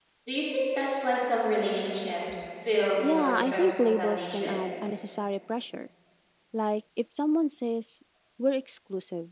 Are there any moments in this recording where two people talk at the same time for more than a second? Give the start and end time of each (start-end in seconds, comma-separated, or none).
3.0-4.6